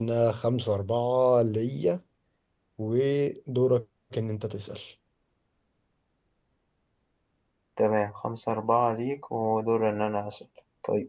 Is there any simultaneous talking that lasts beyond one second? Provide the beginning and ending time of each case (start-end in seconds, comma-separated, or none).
none